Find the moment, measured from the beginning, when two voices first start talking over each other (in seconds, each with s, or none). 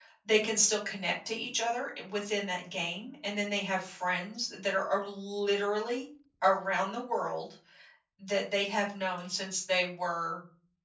none